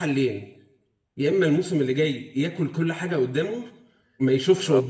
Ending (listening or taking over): listening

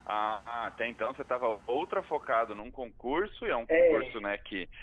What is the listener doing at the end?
listening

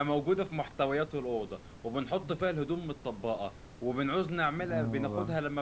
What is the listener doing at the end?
listening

